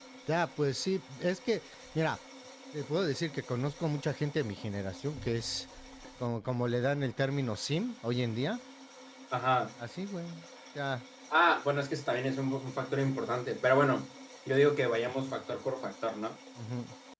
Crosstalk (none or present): none